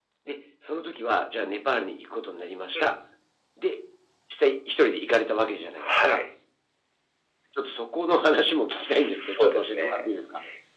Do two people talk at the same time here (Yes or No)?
Yes